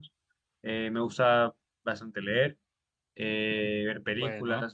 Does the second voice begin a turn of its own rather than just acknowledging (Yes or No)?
No